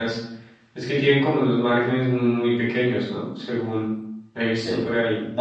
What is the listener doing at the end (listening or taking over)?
taking over